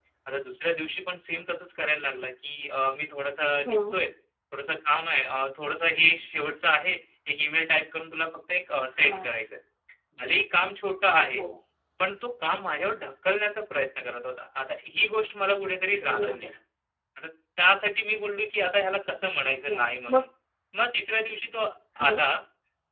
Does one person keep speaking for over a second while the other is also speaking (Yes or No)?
No